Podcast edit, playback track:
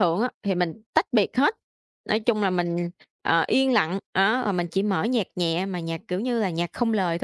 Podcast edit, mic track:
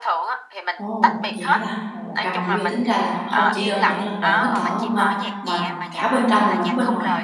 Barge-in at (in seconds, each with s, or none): 0.8 s